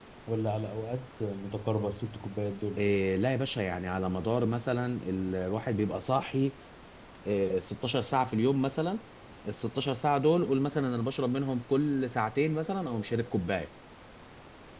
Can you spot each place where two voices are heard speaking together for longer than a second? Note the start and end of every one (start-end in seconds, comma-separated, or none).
none